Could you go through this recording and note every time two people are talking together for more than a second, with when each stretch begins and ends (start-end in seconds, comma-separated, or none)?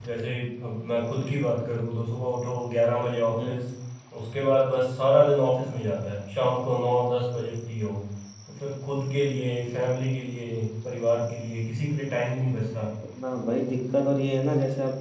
none